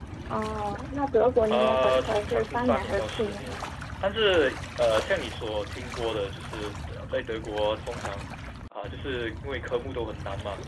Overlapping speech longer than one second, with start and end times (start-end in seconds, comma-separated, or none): 1.5-3.6